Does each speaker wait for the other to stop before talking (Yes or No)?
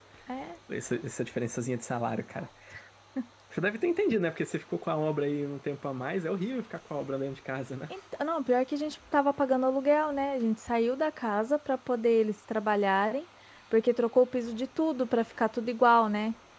Yes